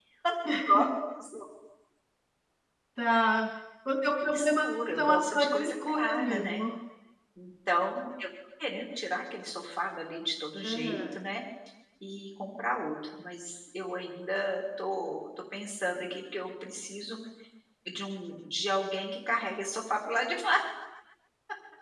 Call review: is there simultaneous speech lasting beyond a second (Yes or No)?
Yes